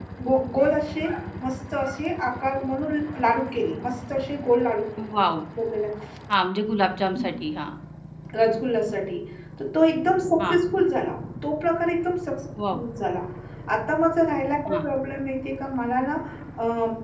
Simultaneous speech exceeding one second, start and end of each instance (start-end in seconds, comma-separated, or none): none